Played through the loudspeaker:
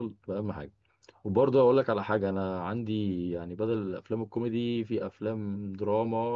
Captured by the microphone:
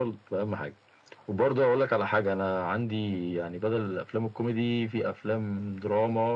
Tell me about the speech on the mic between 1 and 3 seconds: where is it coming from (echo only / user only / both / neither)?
echo only